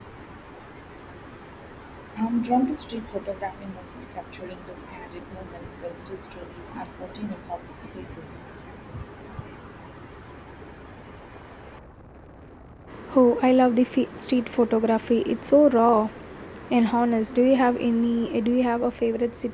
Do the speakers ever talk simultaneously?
No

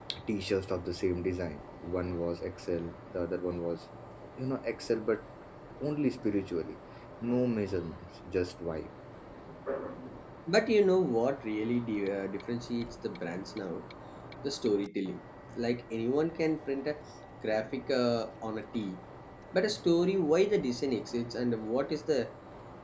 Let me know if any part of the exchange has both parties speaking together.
No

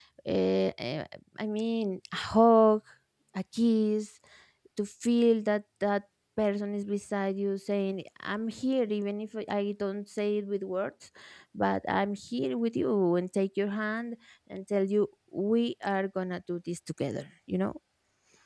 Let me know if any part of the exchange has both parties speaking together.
No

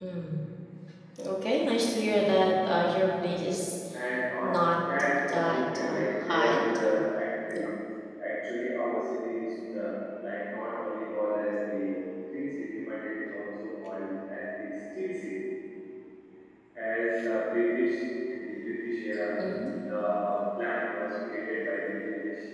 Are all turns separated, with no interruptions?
No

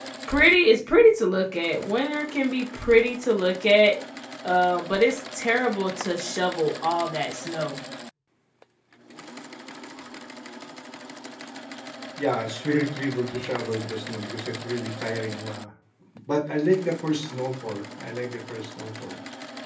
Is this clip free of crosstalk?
Yes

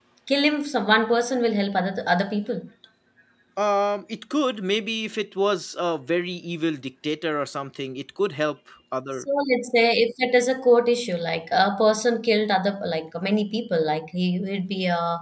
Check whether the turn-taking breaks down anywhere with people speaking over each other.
No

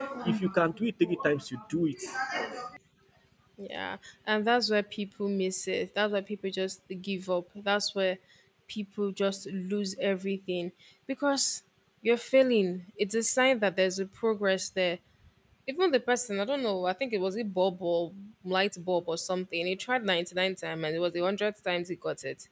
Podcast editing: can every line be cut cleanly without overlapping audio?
Yes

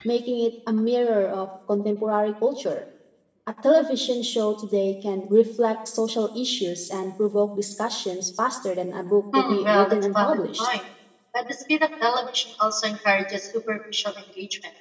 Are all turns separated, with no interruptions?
No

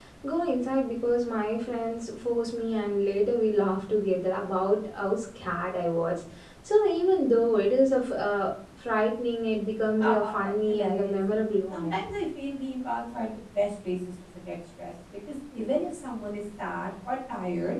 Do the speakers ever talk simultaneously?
Yes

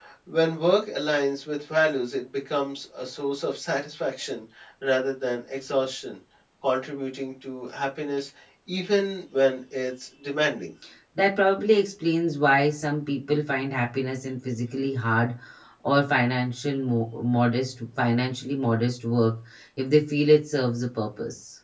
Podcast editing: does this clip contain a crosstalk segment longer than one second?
No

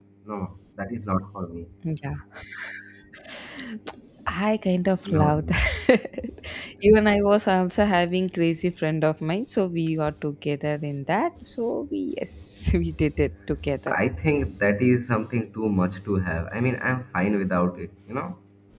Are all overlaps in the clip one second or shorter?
Yes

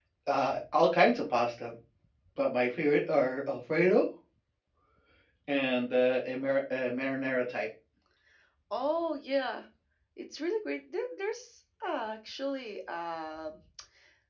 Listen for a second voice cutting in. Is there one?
No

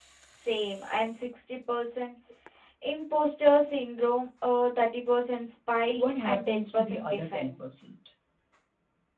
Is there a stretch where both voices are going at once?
Yes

